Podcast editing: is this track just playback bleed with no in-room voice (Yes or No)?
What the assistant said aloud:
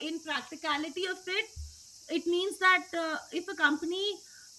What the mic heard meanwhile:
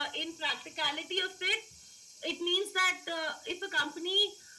Yes